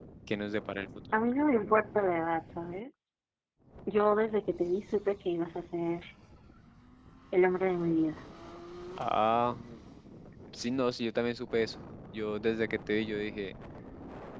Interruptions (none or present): none